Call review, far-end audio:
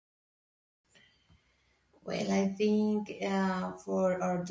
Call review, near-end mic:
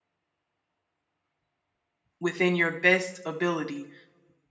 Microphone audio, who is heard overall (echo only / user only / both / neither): user only